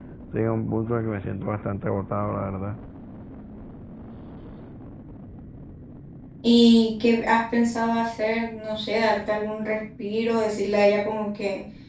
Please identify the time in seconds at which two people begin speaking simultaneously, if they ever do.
none

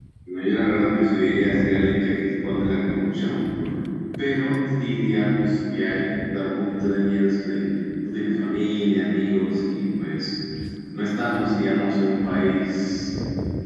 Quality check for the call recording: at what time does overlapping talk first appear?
none

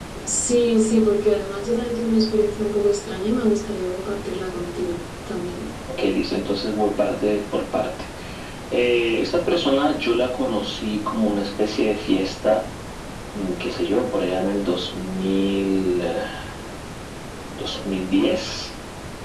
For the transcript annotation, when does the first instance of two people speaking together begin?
none

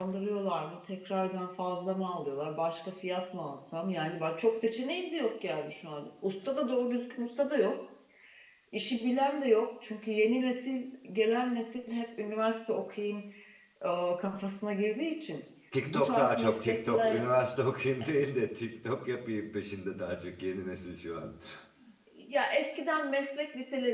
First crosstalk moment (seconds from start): 16 s

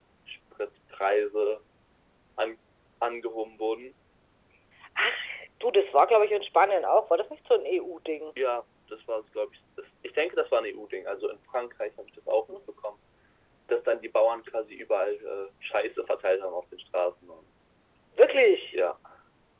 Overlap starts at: none

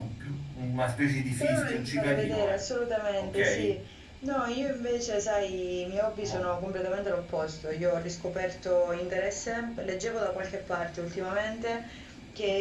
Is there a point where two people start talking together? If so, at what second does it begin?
1 s

